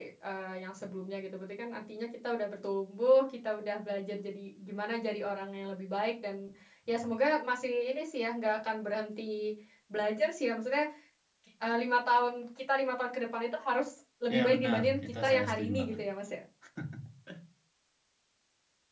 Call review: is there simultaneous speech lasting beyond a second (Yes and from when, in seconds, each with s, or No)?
Yes, from 14.3 s